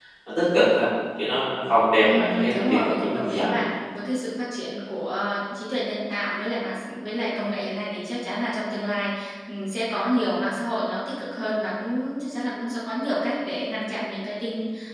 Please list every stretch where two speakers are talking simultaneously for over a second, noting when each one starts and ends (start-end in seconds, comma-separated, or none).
2.0-3.6